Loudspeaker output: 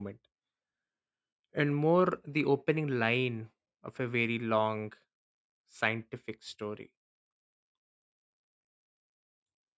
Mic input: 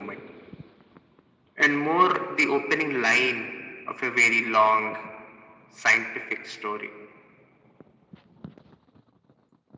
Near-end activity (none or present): none